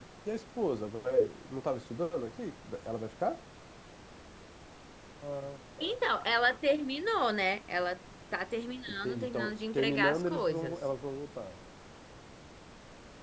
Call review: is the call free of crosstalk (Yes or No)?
No